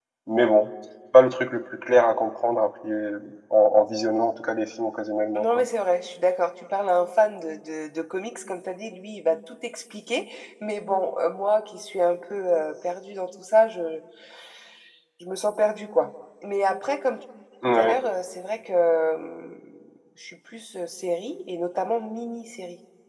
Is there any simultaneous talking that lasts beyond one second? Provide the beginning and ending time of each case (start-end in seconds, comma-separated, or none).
none